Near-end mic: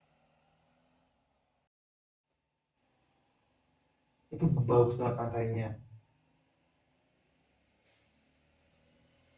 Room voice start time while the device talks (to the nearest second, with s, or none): 4 s